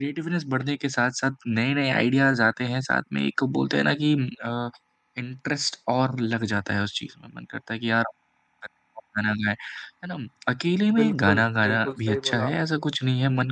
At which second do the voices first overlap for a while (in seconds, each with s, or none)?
10.9 s